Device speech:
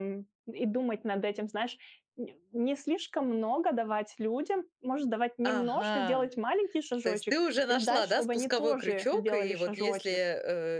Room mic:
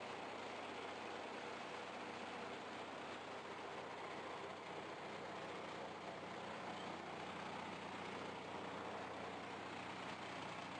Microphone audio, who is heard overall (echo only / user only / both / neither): neither